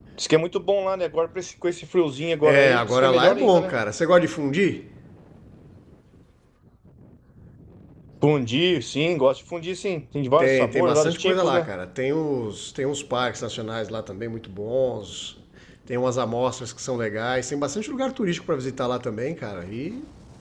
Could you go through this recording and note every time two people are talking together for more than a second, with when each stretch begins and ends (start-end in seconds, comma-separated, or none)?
2.4-3.7, 10.4-11.7